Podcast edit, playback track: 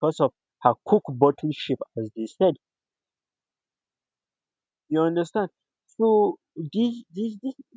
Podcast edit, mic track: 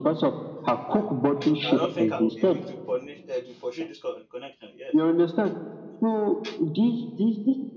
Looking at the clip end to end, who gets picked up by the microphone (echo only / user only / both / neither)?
both